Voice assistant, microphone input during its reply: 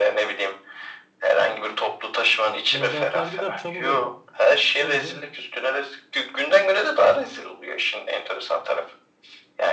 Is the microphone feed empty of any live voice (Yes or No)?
No